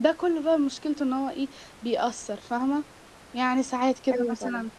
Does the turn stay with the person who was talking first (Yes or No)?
Yes